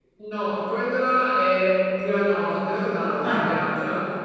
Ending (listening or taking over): listening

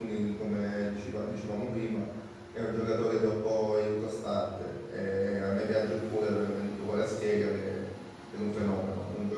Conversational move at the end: listening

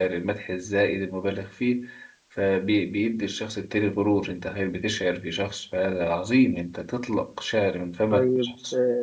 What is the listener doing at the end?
taking over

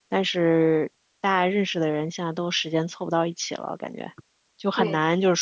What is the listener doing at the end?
listening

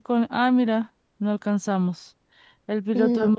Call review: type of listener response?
listening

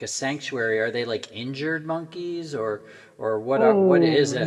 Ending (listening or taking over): taking over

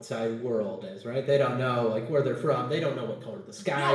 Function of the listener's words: taking over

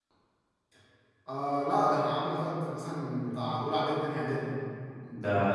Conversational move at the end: taking over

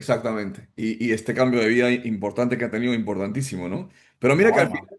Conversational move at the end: listening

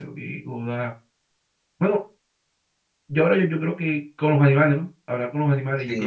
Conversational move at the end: taking over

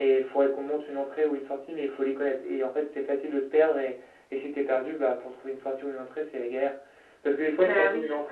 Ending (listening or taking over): listening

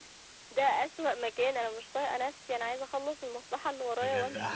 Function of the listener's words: taking over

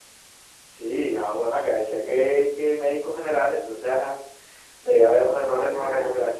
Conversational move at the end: listening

